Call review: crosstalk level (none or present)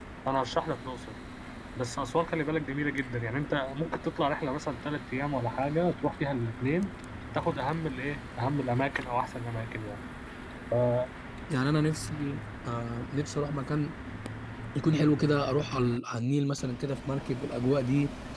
none